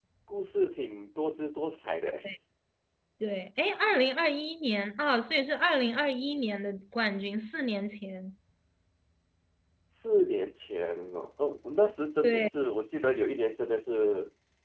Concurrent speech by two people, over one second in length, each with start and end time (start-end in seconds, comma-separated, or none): none